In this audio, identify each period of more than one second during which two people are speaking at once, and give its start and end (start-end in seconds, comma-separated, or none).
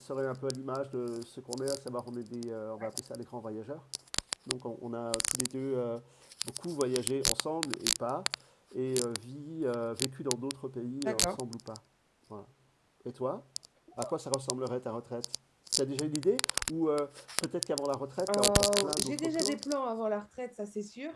18.3-19.6